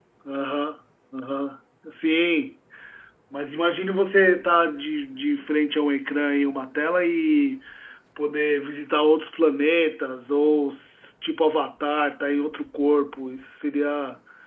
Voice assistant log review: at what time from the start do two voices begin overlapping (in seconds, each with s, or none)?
none